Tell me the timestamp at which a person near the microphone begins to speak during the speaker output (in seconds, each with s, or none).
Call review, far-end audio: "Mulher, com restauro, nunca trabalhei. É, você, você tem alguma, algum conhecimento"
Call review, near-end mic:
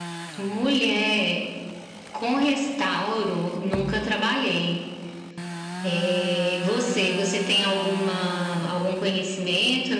none